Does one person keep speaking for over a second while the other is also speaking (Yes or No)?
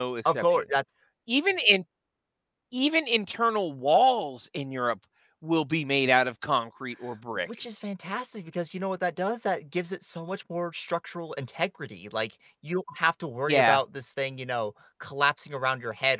No